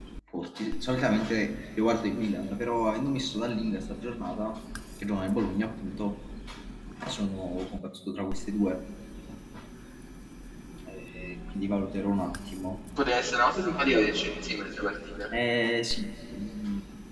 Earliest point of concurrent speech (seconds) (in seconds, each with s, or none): none